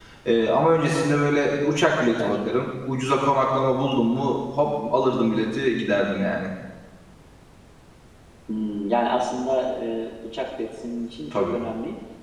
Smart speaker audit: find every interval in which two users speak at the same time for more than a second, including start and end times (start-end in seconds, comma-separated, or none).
none